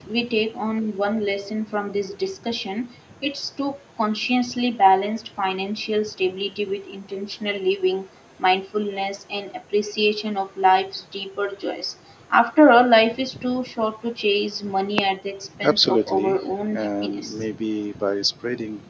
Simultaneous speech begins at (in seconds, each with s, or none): 15.6 s